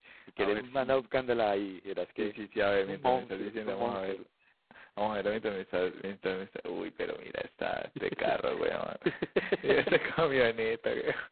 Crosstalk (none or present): present